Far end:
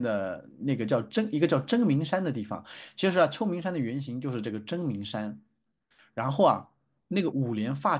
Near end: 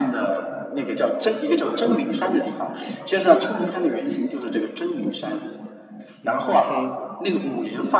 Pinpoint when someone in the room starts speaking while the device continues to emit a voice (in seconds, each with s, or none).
6.0 s